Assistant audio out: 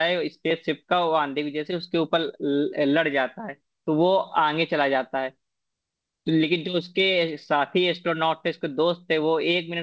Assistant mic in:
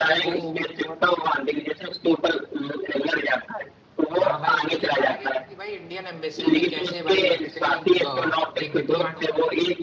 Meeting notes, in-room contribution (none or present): present